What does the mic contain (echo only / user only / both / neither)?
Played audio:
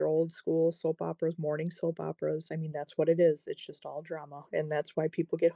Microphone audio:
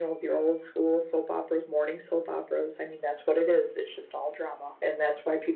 echo only